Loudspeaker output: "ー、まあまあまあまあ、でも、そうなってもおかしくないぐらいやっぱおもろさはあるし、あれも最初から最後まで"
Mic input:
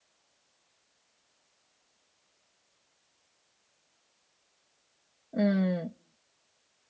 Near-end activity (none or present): present